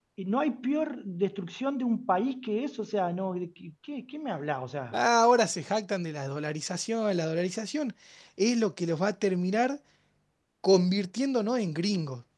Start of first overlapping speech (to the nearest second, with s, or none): none